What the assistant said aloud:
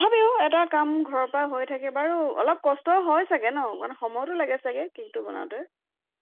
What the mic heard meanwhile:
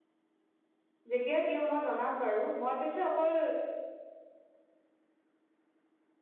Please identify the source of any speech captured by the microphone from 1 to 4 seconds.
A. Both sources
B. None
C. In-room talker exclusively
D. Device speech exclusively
C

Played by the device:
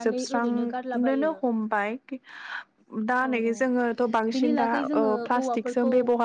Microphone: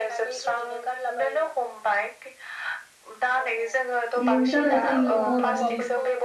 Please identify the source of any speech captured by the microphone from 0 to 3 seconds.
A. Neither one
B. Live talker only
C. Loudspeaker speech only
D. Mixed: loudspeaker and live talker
C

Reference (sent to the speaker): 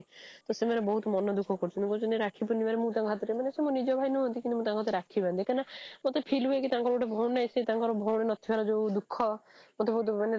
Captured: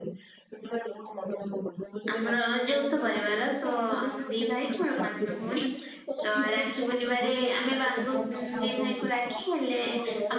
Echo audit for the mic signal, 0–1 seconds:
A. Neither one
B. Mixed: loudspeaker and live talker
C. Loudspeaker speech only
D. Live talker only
C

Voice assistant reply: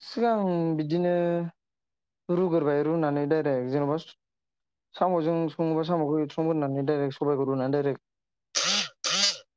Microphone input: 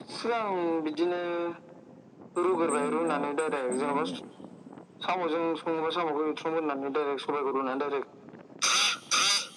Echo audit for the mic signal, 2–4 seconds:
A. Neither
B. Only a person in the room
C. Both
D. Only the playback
C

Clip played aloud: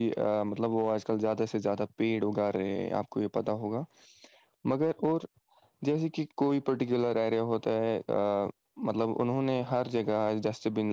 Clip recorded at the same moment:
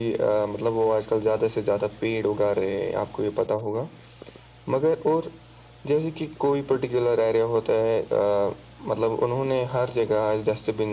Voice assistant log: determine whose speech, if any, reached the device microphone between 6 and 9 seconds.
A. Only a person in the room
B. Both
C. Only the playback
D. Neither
C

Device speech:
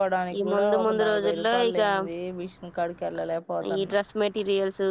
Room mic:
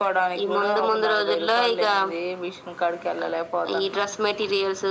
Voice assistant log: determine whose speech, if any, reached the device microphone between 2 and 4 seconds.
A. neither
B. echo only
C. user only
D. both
B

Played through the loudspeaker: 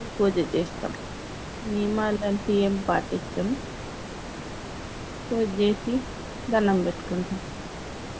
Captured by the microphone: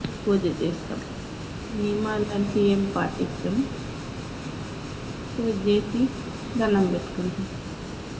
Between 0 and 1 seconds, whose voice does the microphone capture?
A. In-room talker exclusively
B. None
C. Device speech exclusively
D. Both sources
C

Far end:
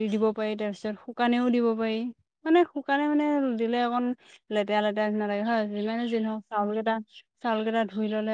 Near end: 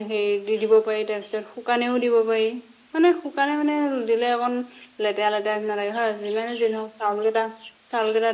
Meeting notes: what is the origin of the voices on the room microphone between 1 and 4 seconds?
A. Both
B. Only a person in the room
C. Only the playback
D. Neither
C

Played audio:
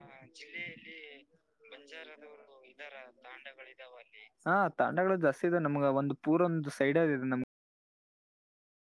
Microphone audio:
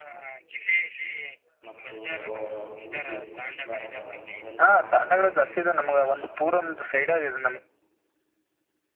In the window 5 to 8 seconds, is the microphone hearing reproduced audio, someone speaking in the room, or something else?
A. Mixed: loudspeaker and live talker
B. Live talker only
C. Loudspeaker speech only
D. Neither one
A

